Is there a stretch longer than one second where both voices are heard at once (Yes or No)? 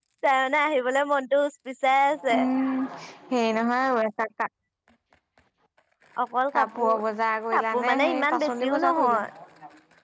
Yes